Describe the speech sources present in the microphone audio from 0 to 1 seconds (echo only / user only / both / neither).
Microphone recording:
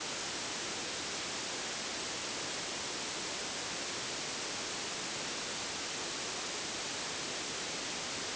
neither